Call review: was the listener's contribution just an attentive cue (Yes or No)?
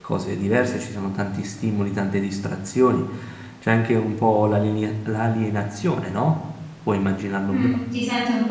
No